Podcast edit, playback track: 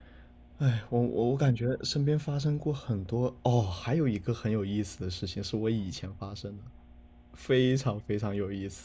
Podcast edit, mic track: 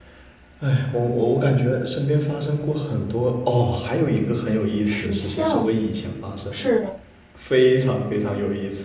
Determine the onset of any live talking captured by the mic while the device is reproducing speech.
5 s

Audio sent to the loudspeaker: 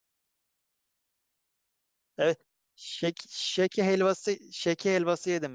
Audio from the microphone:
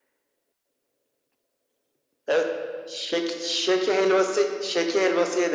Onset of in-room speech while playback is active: none

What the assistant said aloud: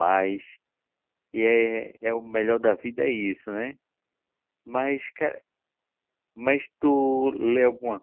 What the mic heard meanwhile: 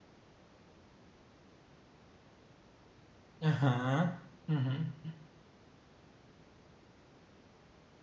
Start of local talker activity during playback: 3 s

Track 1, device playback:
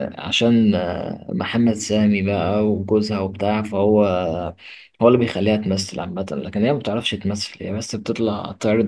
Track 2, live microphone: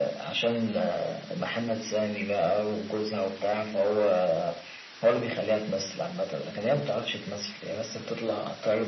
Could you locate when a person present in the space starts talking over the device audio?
none

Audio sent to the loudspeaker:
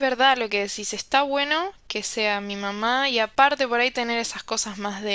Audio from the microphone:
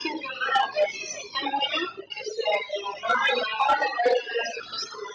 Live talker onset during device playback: none

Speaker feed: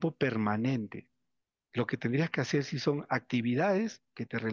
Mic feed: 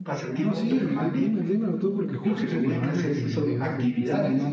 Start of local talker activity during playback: 0 s

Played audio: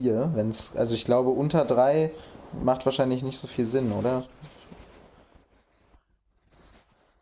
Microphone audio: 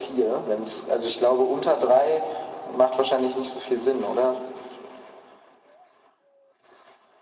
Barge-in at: none

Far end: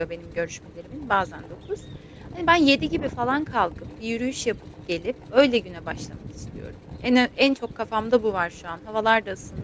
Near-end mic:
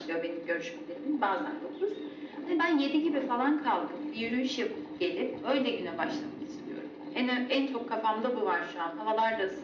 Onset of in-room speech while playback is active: none

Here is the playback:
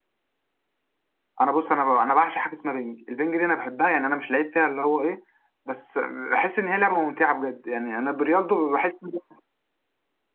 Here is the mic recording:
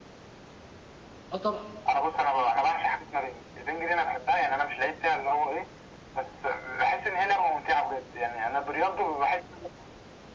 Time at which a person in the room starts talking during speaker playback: 1 s

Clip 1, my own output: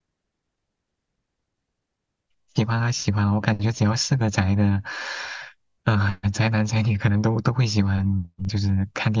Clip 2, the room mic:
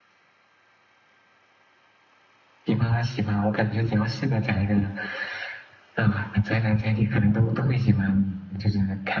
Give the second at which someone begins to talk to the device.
none

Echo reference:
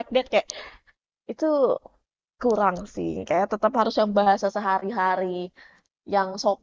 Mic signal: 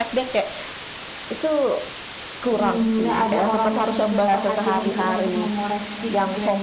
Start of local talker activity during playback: 3 s

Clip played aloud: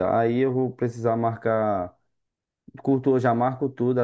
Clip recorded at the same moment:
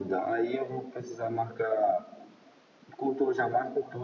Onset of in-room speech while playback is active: none

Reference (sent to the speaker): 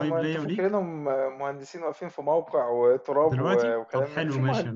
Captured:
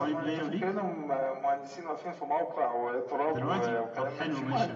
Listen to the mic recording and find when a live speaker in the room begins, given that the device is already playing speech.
none

